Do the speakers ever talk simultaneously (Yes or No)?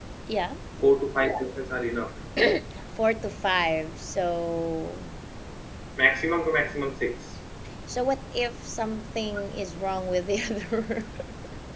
No